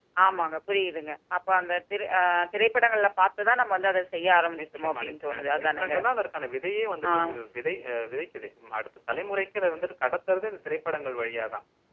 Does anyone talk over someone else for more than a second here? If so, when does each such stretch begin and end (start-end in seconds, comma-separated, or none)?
4.6-5.9